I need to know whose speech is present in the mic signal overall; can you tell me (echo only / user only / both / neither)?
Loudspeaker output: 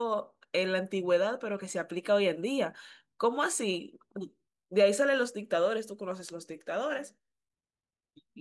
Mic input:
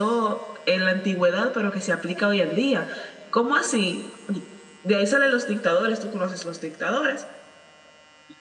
echo only